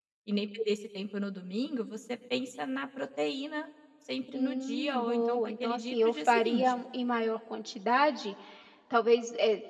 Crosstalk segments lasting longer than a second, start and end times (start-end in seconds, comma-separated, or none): 4.3-6.8